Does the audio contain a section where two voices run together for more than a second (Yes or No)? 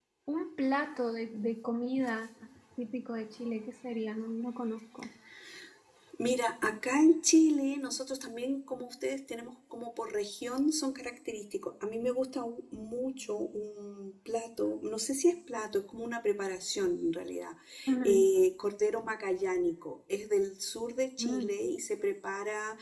No